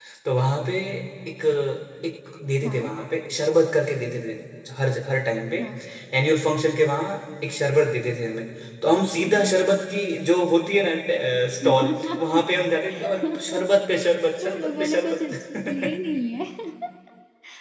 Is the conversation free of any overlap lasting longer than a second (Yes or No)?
No